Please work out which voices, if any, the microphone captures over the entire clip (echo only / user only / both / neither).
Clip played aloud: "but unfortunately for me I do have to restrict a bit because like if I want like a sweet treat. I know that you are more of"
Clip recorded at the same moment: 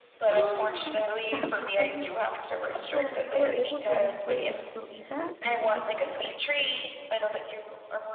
both